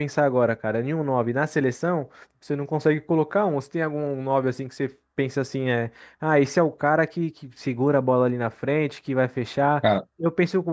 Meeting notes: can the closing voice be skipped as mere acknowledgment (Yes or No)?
Yes